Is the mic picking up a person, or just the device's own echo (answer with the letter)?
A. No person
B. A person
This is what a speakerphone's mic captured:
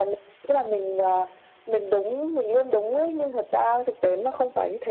A